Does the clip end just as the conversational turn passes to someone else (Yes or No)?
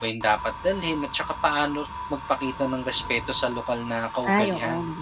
Yes